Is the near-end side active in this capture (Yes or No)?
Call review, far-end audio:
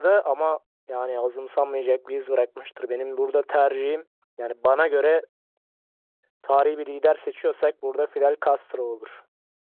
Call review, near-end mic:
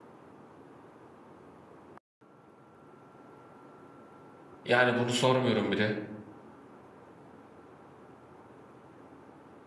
Yes